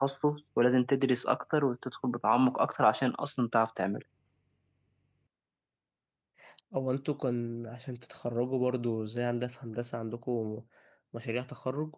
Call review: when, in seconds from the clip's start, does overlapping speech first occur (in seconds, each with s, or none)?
none